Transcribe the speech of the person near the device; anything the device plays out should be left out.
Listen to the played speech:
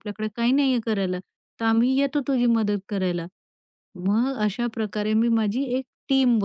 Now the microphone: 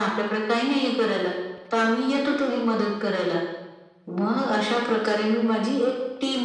none

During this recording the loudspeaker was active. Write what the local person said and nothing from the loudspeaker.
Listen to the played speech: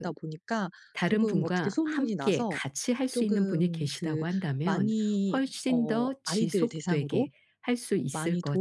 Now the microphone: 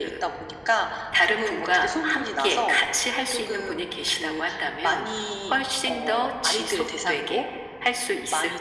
none

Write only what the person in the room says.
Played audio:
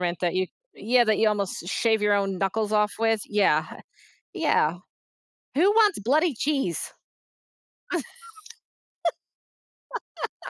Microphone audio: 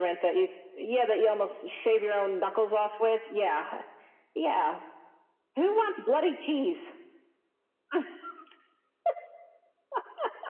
none

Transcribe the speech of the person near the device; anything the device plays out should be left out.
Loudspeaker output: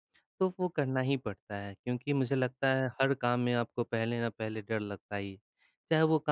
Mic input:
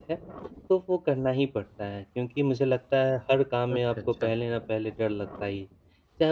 अच्छा, अच्छा।

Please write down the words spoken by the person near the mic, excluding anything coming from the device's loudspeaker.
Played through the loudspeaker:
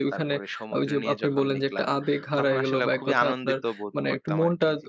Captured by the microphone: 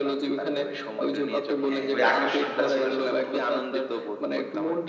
হ্যাঁ, ওই আকর্ষণটা ছিল না আরকি।

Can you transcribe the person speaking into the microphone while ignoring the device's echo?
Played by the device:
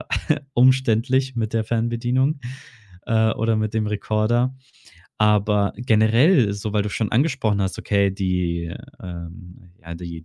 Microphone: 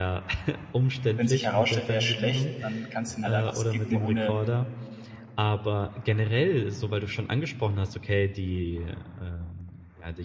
wenn sich herausstellt, er ist schlecht, dann kannst du ihn halt einfach skippen, ohne

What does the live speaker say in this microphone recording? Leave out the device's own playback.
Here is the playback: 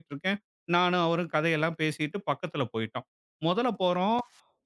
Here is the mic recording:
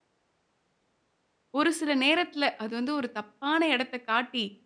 ஒரு சில நேரத்துல அது வந்து ஒரு தப்பான இடத்த காட்டி,

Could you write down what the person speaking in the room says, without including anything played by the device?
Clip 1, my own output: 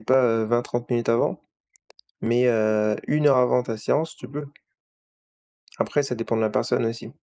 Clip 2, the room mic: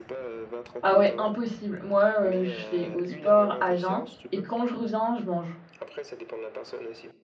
Ah ouais, impossible. Moi, heu, je vais au sport à jeun et quand je reviens, je mange.

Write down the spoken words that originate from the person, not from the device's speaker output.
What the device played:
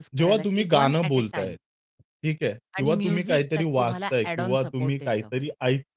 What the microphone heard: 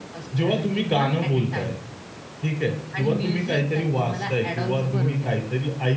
बरोबर,

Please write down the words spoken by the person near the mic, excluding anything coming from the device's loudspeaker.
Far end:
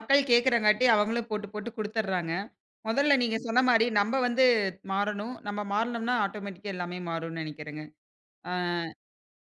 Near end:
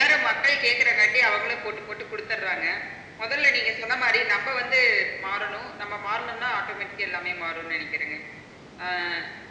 none

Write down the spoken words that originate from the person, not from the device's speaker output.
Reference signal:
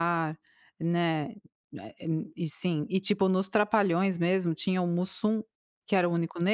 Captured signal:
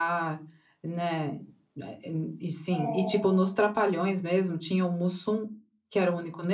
é.

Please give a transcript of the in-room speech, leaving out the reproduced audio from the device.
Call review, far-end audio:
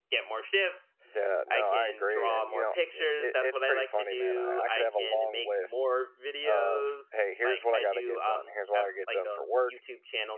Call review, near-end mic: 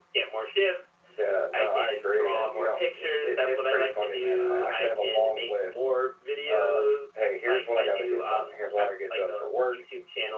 none

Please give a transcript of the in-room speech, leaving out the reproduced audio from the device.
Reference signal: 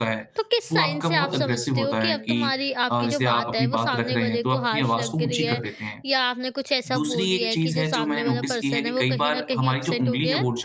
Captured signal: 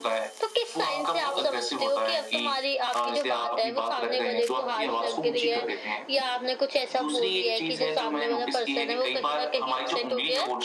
none

